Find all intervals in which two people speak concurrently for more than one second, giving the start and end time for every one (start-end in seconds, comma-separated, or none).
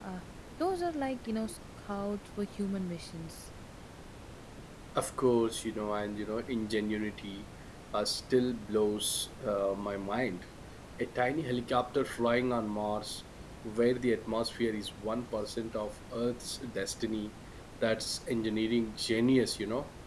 none